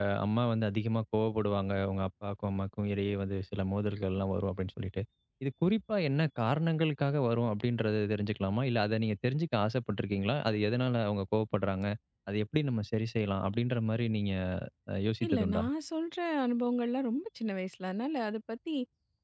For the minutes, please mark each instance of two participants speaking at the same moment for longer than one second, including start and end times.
none

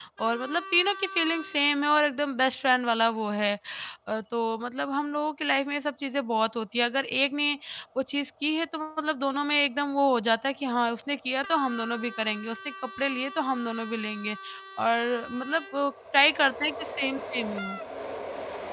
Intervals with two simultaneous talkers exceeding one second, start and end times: none

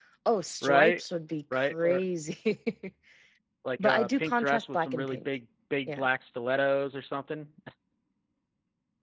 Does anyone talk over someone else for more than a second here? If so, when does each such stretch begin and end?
3.8-5.2

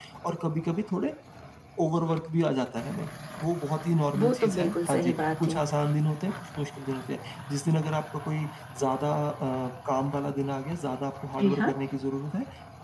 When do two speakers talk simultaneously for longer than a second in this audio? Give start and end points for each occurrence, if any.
4.1-5.6

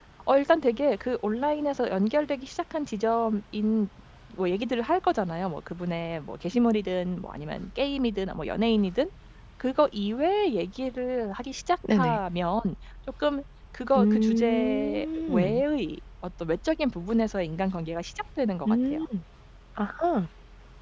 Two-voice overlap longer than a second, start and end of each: 14.0-15.6

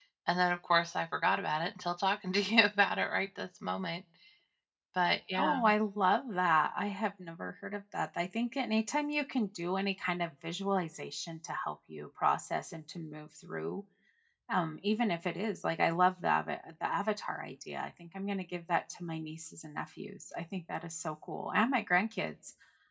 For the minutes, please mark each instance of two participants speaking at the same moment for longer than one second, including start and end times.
none

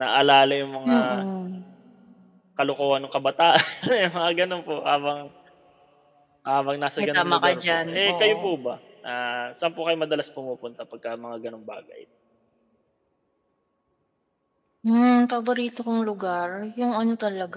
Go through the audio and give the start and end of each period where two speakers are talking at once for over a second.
7.0-8.4

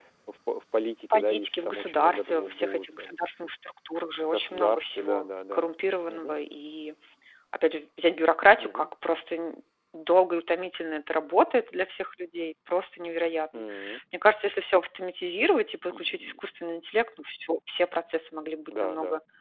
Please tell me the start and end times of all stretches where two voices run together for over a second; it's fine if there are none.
1.1-3.1, 4.3-5.7

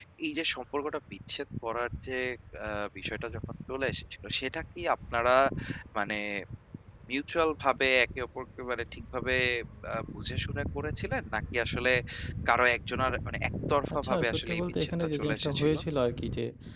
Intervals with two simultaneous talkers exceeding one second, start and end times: 14.0-15.7

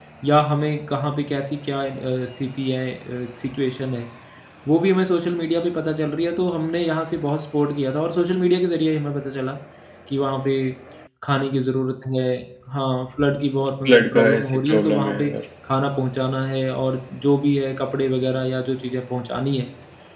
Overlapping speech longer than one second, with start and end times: 13.8-15.3

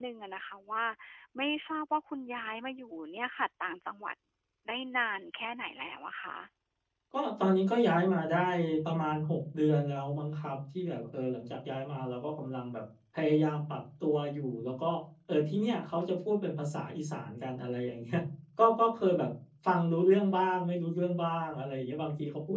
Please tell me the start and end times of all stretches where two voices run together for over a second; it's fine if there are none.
none

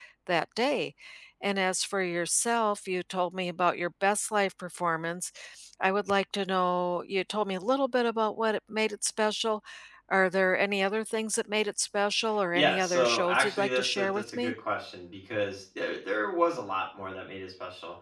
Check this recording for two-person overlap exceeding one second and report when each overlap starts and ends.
12.5-14.5

